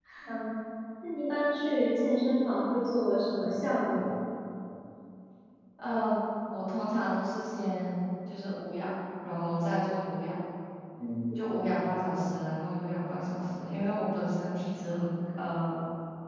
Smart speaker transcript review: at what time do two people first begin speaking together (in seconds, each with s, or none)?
none